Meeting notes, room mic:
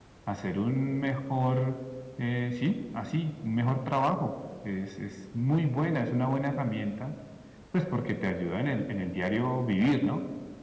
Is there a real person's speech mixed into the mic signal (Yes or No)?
Yes